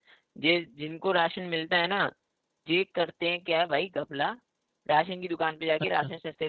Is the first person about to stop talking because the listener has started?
No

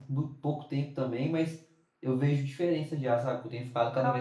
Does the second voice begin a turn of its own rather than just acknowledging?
Yes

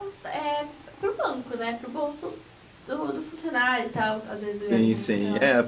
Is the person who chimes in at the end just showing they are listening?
No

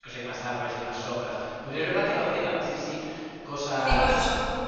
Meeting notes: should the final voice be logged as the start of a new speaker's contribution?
Yes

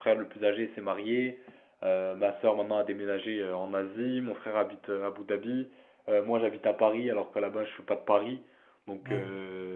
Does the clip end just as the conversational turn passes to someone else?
No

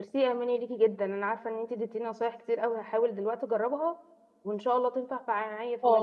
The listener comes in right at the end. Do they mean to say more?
Yes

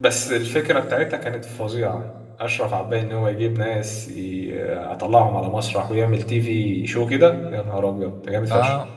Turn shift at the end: Yes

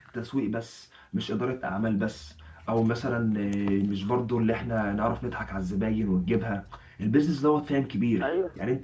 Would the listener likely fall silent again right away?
Yes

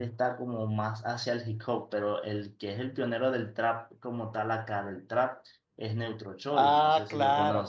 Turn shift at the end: Yes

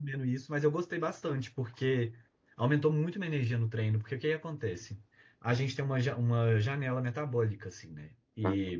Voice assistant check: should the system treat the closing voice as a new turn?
No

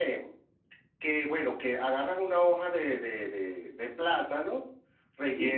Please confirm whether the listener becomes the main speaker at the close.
No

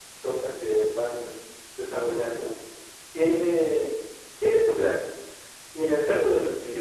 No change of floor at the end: Yes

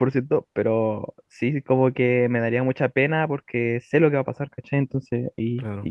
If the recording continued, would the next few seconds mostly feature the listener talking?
No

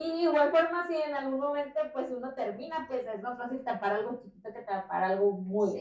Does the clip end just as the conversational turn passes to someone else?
Yes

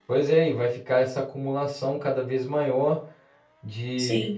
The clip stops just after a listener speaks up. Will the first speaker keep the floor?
Yes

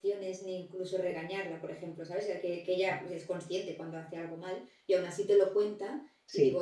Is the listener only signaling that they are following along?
Yes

